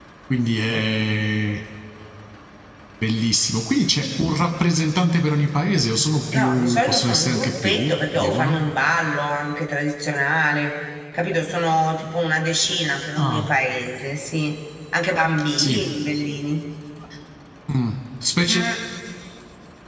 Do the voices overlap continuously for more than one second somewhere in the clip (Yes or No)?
Yes